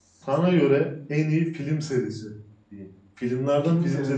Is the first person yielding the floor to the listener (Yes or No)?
Yes